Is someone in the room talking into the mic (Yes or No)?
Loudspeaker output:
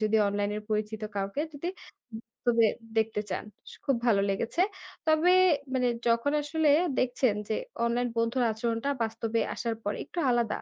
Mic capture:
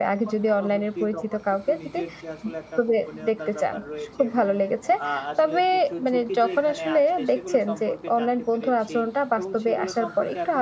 Yes